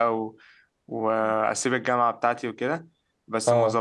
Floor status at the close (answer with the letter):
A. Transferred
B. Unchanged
B